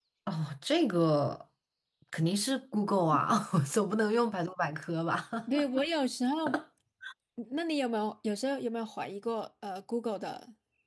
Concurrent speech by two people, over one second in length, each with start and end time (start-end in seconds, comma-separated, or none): none